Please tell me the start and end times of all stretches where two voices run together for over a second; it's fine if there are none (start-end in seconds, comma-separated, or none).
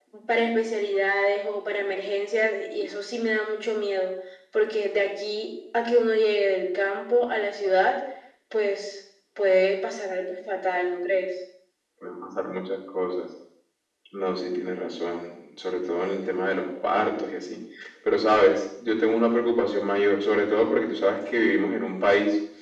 none